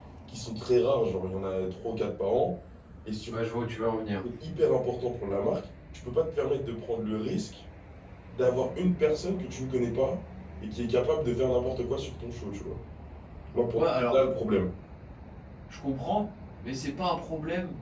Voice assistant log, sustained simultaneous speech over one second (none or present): none